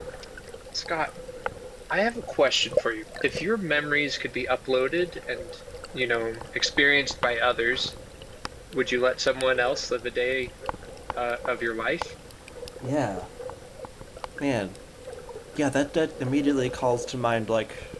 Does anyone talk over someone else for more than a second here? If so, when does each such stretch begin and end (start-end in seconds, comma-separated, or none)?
none